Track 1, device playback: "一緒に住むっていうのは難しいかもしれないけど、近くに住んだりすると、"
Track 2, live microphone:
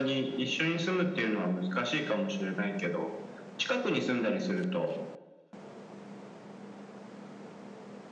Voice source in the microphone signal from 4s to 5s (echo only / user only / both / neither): echo only